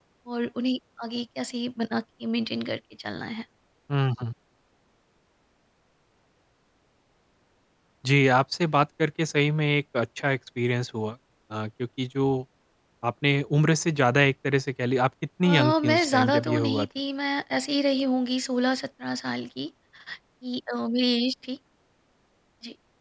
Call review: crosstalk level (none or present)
present